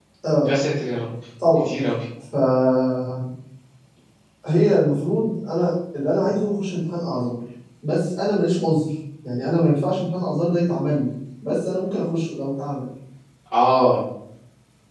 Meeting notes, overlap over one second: none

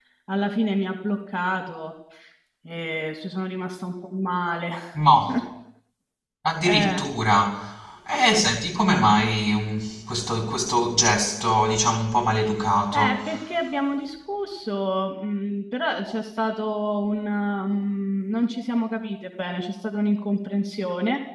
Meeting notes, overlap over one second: none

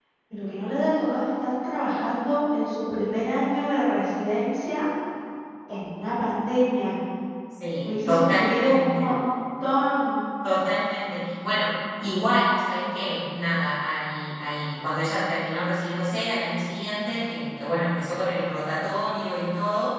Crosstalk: present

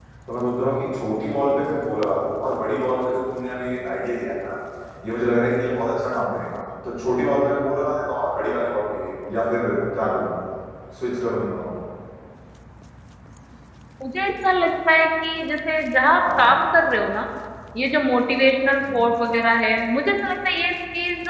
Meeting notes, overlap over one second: none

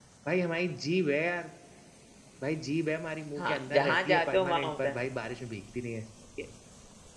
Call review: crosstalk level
present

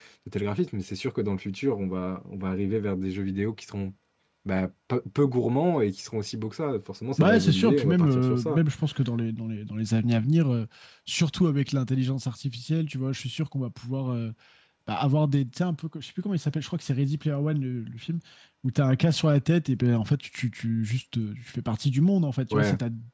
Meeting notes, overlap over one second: present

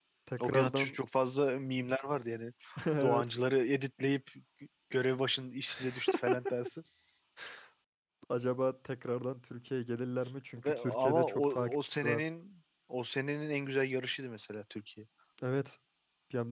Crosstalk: present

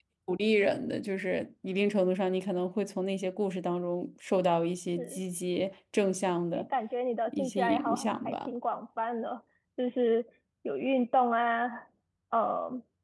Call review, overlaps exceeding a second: present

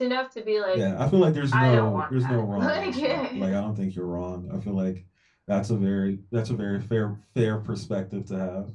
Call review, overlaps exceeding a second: present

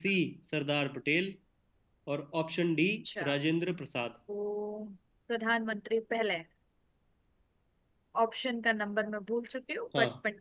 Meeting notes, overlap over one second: none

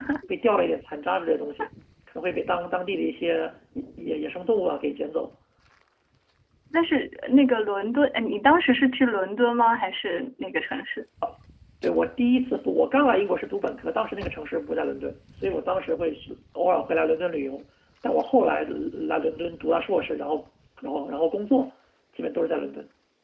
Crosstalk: none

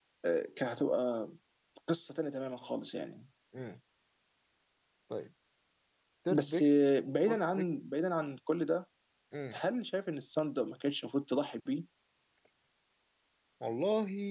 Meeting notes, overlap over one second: none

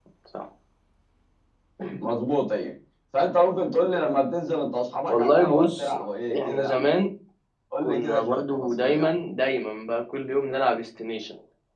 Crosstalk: present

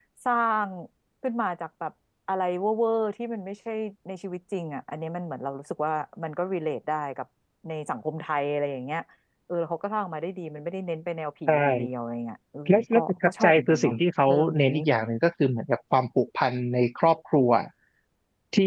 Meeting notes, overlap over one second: present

